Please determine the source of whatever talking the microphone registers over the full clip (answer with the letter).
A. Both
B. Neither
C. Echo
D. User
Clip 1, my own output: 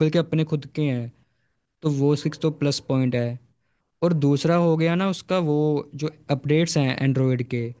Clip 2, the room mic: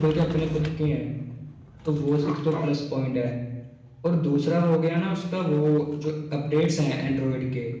C